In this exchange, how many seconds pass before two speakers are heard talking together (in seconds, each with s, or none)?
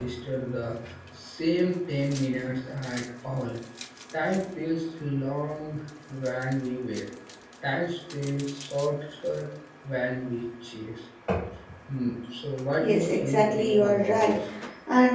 12.8 s